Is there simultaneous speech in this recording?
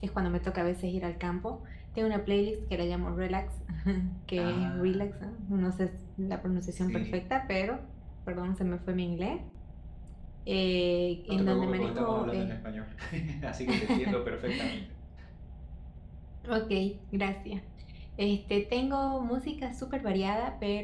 Yes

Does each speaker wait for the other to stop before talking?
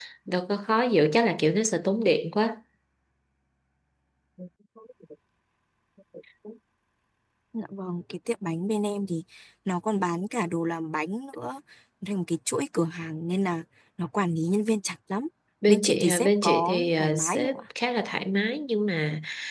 No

